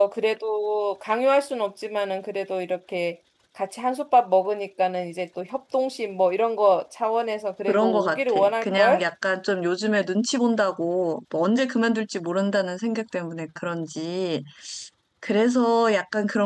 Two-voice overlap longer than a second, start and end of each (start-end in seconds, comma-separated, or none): 7.7-9.0